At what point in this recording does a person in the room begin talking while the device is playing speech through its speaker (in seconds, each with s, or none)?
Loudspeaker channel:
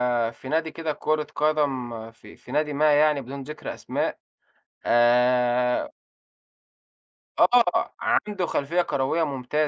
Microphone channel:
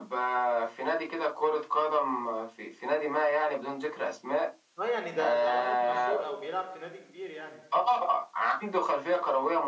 4.8 s